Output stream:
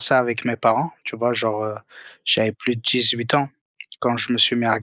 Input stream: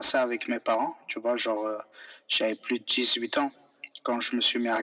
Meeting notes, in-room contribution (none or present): none